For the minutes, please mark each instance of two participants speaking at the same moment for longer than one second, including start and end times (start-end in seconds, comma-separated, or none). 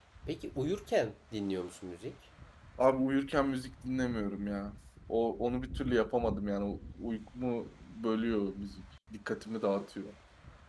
none